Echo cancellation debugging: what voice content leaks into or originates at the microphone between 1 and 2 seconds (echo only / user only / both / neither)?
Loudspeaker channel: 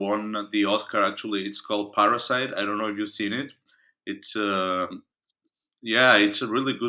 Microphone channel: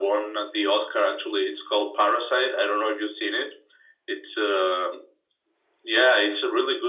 echo only